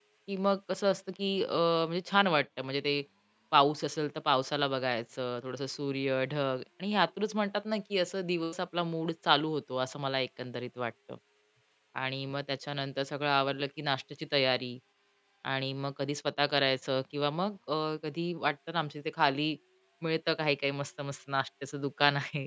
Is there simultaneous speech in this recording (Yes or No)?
No